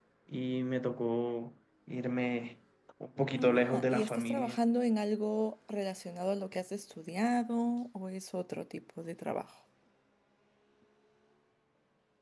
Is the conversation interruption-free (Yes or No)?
No